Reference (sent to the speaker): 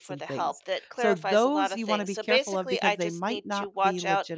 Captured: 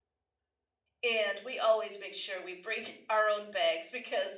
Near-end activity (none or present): present